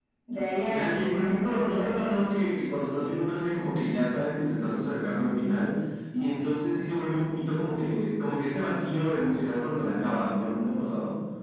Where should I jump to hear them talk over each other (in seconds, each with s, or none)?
0.6 s